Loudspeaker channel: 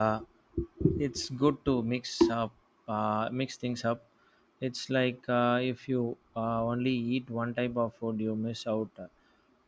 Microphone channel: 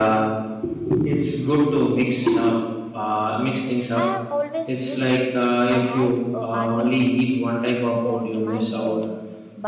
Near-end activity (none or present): present